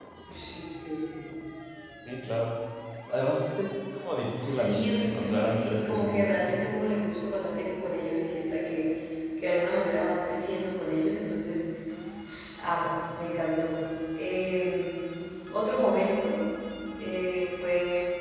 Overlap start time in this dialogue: 4.4 s

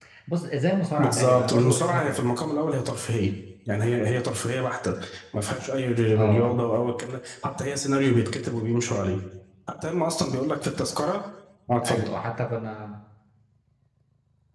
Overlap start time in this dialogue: 1.0 s

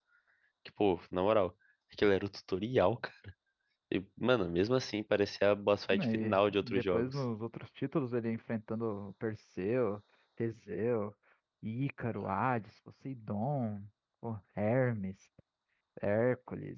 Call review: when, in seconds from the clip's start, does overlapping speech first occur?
5.9 s

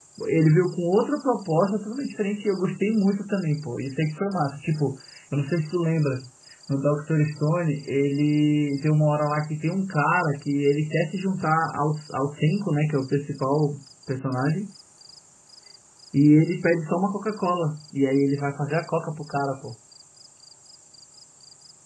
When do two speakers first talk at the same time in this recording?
none

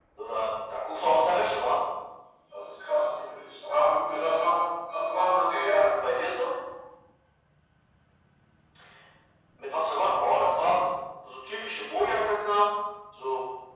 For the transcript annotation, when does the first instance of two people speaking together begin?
none

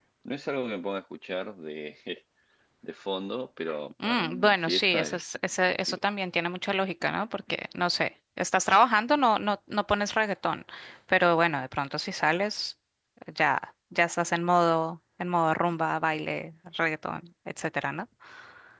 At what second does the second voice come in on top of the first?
4.0 s

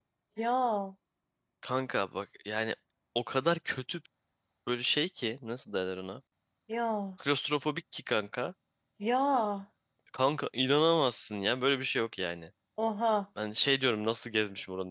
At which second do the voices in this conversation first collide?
none

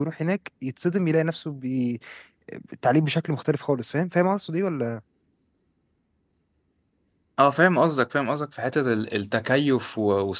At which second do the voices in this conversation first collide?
none

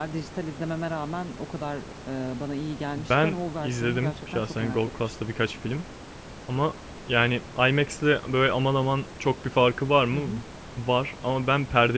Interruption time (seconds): 3.0 s

